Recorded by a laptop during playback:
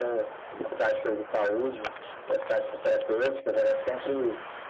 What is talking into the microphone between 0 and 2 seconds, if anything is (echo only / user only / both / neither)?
echo only